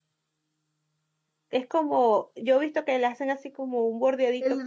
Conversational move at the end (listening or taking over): taking over